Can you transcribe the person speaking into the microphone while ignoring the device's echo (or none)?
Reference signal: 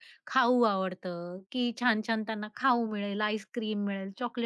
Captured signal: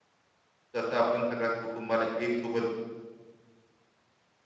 कसं आपण सगळ्या कुटुंबाला एक सोबत